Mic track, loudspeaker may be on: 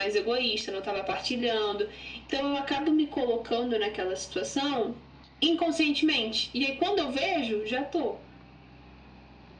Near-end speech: none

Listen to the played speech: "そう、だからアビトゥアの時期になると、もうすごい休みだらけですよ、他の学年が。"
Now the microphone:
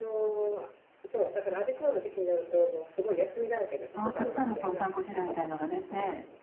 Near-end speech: present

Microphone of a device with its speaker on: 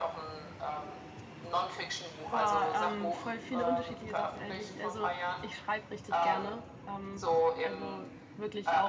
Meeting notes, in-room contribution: present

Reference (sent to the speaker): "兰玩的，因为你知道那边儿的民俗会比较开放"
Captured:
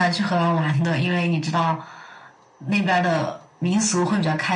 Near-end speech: none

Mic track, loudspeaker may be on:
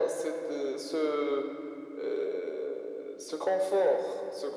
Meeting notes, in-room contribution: none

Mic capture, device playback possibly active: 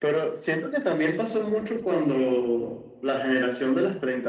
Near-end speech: none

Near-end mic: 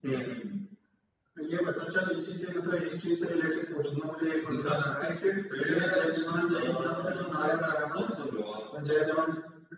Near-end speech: none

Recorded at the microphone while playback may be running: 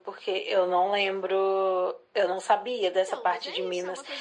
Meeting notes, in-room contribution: present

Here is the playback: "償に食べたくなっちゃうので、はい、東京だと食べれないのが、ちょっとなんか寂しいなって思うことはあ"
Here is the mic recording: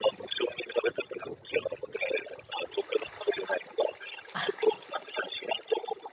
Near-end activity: present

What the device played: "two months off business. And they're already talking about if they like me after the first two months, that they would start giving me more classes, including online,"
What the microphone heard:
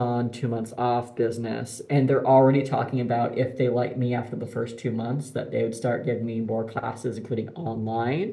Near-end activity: none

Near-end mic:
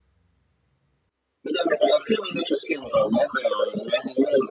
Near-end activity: none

